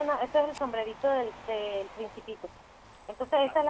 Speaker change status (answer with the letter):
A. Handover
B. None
B